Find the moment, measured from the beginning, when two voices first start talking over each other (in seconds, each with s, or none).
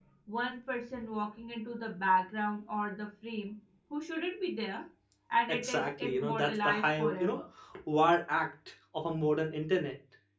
5.5 s